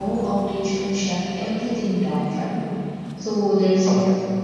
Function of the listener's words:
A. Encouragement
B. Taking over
A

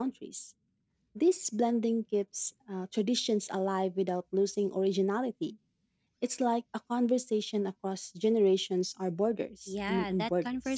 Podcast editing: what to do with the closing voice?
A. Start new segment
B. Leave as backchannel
A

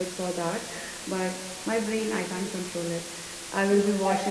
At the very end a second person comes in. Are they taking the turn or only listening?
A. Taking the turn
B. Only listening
B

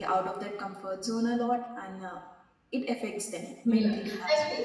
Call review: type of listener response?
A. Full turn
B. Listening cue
A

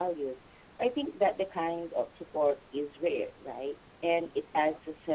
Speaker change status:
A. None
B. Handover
A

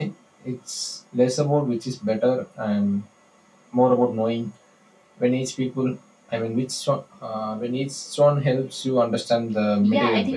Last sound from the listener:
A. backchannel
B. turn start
B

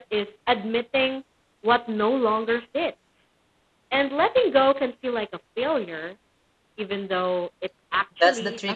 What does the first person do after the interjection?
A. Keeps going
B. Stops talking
B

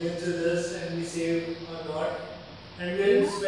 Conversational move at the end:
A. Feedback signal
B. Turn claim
A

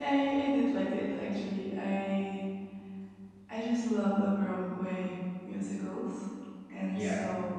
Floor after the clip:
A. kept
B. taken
A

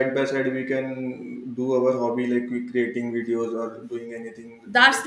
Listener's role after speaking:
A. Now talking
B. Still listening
A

